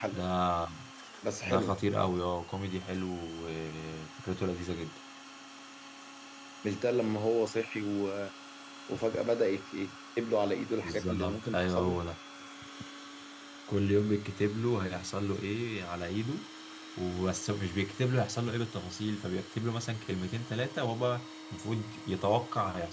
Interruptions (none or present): present